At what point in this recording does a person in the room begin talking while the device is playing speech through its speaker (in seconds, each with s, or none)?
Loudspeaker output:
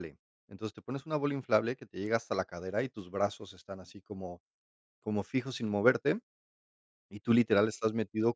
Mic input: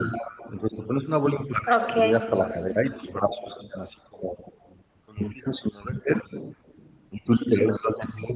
1.7 s